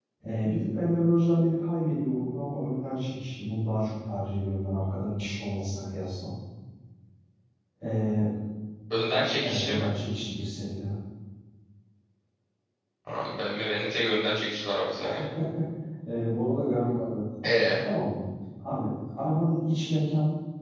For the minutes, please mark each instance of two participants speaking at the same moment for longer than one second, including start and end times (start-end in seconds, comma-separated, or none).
none